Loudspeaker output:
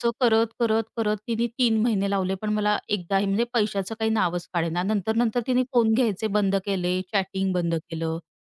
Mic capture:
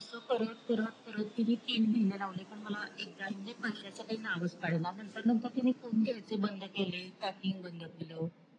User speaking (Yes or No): No